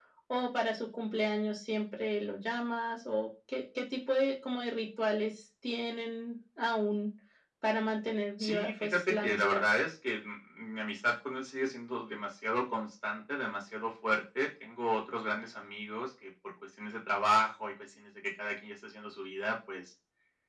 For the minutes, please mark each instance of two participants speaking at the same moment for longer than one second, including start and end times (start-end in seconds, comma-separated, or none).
8.4-9.6